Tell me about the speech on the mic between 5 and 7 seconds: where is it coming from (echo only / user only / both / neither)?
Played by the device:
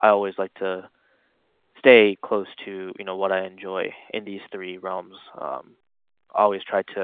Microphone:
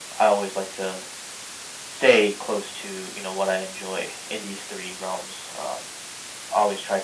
echo only